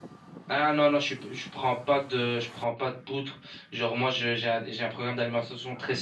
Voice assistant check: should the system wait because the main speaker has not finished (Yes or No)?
Yes